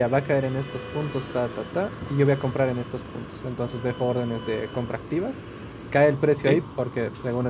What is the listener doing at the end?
listening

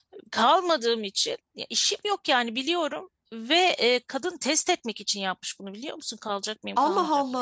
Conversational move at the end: taking over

